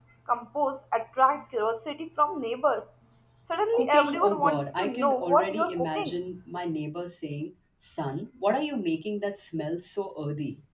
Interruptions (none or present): present